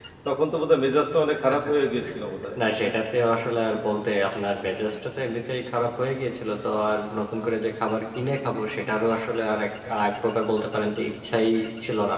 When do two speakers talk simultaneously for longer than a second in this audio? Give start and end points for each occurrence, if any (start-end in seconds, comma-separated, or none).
none